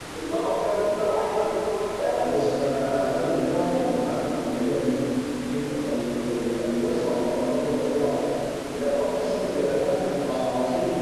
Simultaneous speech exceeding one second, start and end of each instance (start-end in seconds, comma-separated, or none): 2.2-3.9